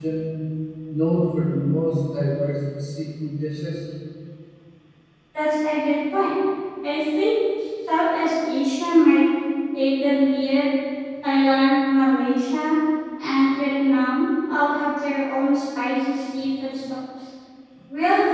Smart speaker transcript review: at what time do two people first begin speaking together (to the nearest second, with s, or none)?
none